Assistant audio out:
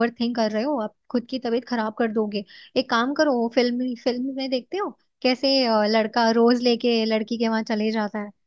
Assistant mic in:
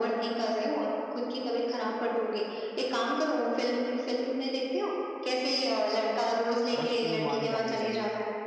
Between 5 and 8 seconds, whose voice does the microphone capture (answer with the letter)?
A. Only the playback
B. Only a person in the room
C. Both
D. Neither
C